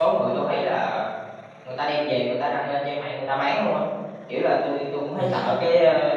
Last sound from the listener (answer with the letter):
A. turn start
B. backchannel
B